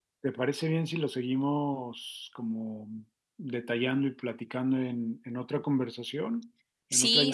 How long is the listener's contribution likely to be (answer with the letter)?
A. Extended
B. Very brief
A